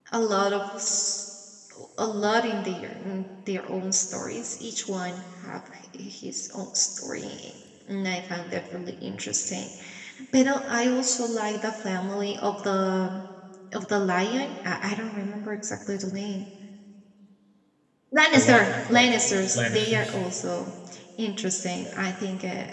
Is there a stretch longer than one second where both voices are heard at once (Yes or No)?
Yes